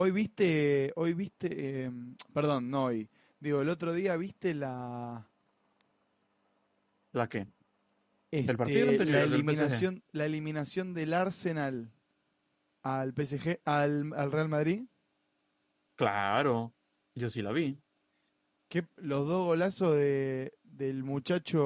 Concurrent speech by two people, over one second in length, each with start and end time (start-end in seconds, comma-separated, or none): 8.5-9.9